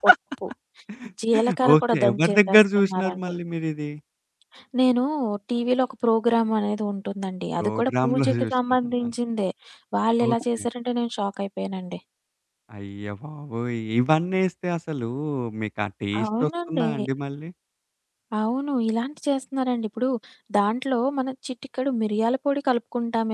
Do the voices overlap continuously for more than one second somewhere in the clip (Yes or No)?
Yes